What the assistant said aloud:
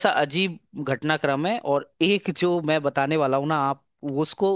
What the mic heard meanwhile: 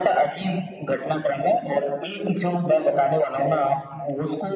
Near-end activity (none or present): none